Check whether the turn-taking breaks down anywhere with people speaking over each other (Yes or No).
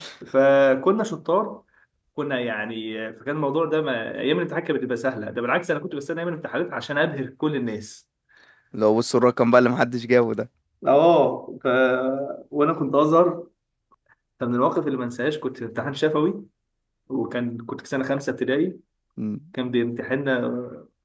No